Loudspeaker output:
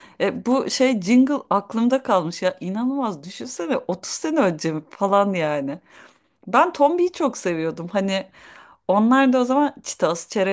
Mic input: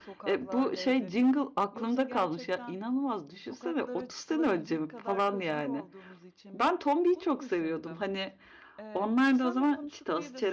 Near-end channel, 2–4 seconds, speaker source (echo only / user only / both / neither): both